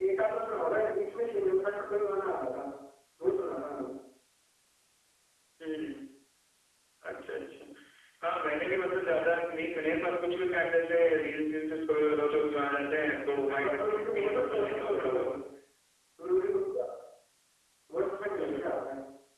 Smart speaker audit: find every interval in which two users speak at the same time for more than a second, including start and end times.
13.6-15.3

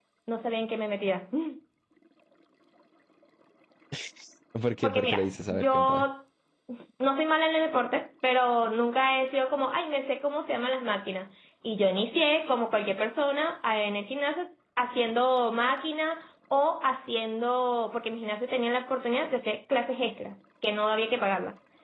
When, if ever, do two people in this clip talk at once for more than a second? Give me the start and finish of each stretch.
4.8-6.0

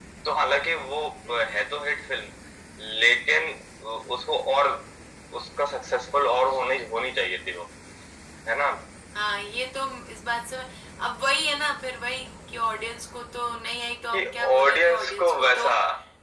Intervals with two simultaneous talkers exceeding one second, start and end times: 14.1-15.7

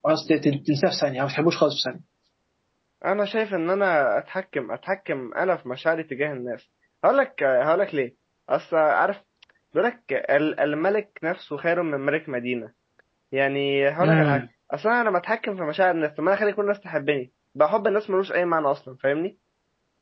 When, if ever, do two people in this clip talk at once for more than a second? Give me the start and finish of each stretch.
none

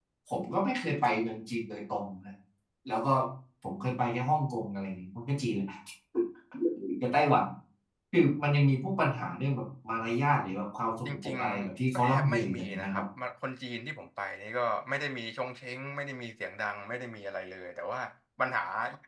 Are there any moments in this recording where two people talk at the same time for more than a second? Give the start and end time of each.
11.0-13.0

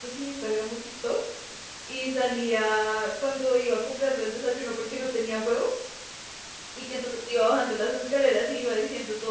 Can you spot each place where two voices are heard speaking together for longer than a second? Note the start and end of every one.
none

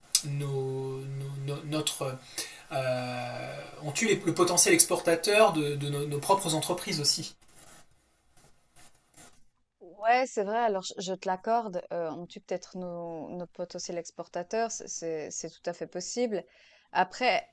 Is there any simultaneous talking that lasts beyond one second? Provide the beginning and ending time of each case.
none

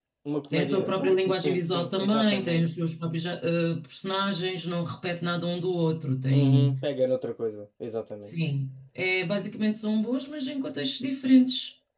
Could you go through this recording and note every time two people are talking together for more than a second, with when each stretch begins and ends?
0.5-2.7

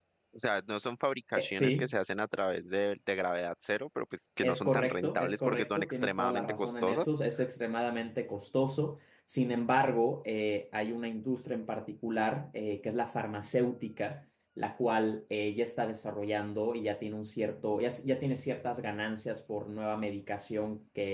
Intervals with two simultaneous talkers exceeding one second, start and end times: 4.4-7.1

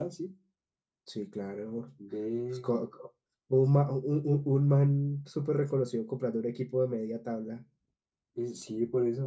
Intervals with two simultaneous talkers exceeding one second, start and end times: none

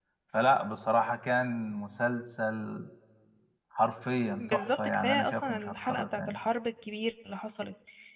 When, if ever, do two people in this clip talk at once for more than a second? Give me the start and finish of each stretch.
4.4-6.4

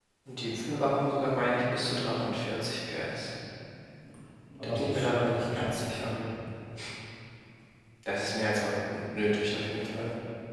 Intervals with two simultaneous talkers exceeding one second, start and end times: 4.8-6.1

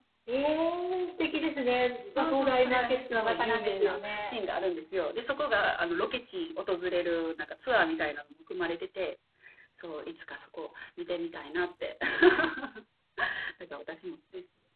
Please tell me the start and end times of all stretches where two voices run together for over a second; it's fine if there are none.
2.1-4.3

